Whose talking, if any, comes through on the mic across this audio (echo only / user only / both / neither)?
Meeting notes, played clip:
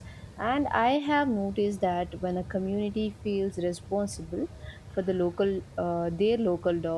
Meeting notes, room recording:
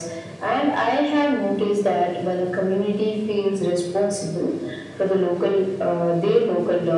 echo only